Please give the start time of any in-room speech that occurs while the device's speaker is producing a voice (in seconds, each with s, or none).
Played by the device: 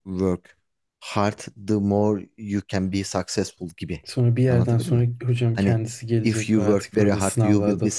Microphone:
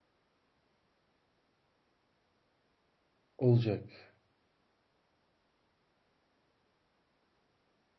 3.4 s